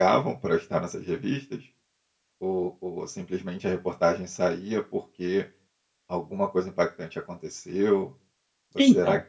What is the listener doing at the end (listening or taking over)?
listening